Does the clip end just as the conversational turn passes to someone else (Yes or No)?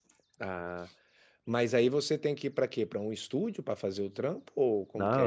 Yes